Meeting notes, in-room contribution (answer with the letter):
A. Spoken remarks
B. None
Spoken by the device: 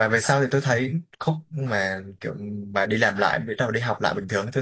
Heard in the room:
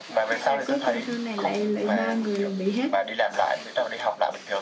A